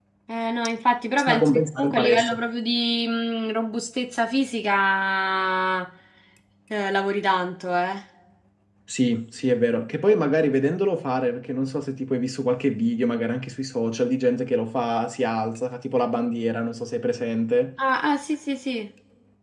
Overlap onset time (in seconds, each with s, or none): 1.2 s